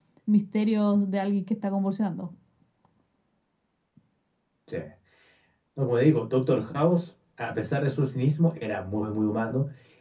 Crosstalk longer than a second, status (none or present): none